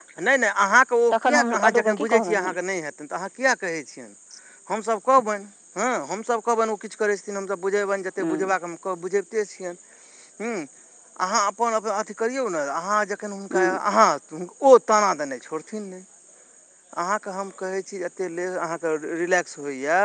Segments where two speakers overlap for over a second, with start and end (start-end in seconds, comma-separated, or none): 1.3-2.5